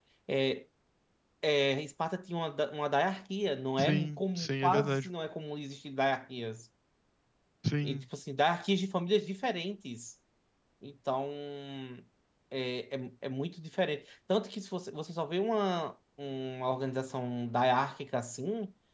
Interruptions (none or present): present